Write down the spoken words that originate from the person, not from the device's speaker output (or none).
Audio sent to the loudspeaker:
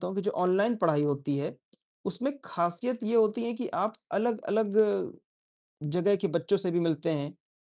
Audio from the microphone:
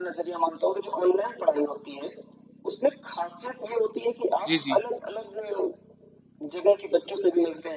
जी, जी।